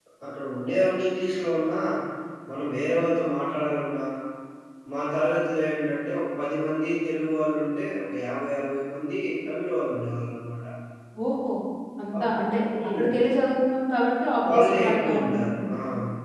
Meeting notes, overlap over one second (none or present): present